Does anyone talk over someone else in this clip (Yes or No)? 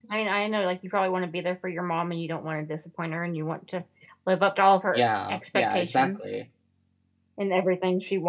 Yes